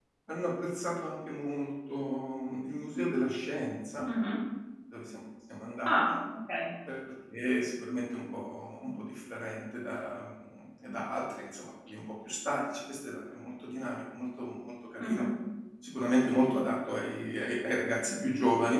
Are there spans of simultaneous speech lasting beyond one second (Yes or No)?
No